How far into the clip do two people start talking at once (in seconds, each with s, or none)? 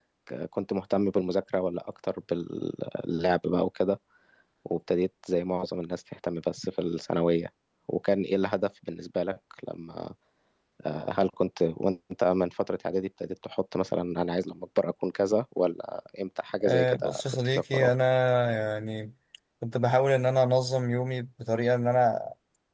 16.6 s